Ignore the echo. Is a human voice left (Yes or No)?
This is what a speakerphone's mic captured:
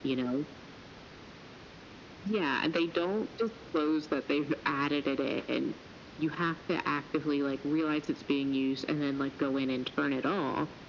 No